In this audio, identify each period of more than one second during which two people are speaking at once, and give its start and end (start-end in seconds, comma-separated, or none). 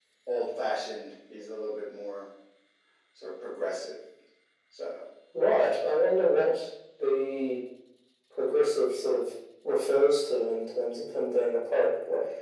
none